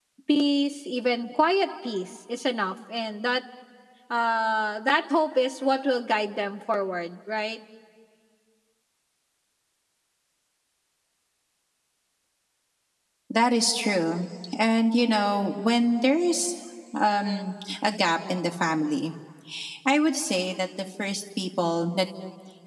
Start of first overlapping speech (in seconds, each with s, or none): none